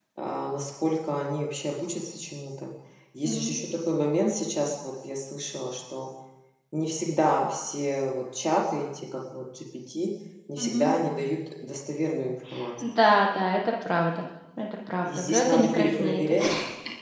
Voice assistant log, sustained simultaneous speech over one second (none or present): present